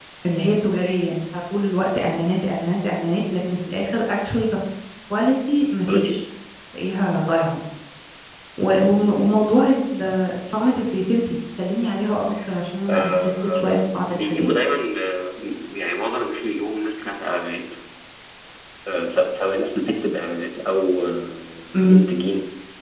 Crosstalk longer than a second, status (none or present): present